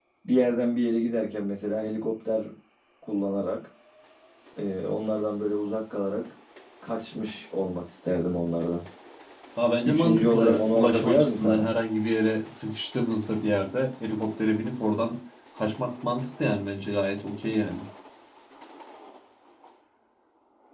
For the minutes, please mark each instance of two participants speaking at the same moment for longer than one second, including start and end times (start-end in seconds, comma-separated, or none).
9.8-11.7